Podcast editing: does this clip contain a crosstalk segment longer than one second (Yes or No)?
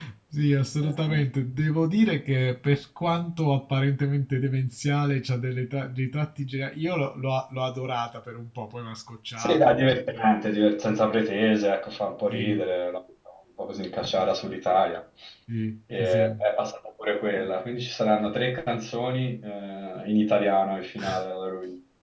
No